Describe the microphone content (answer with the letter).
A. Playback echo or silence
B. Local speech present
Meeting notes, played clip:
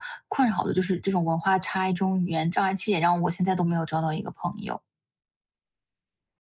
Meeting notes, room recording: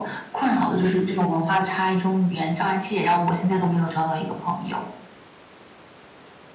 A